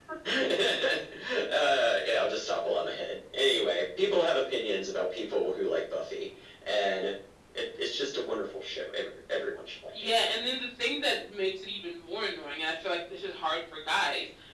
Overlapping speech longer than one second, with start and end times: none

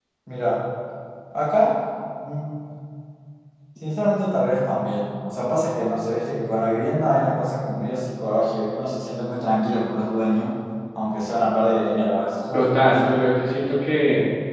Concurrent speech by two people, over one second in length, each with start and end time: none

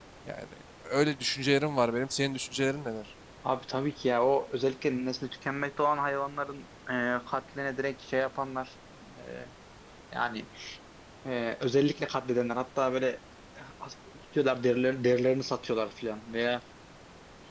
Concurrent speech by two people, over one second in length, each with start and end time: none

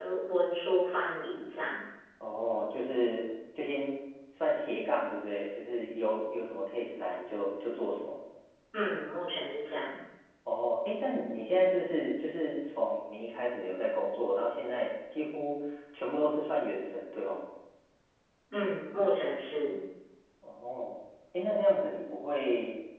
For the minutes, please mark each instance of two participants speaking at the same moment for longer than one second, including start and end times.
none

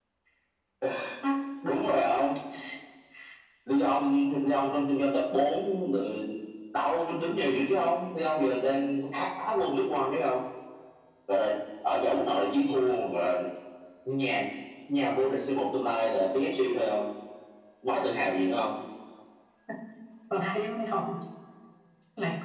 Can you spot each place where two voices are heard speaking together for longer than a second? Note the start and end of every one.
none

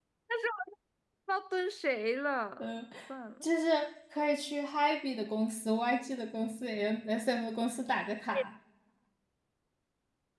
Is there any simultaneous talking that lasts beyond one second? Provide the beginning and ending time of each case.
none

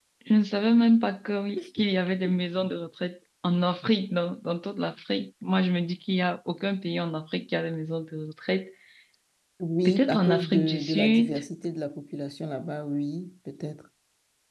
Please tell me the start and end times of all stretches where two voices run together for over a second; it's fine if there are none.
9.8-11.4

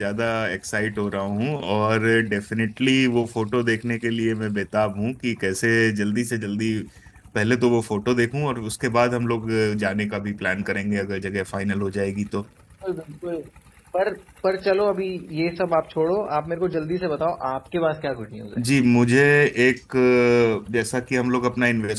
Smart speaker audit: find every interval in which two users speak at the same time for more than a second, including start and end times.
none

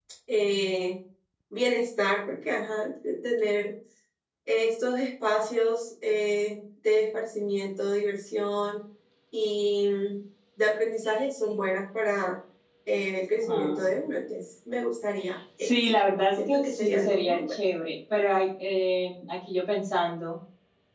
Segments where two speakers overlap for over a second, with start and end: 16.3-17.6

